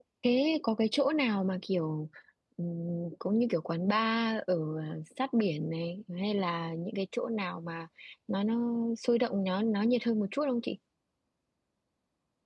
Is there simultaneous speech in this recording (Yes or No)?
No